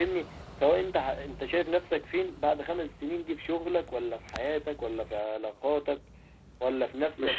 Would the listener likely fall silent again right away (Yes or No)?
No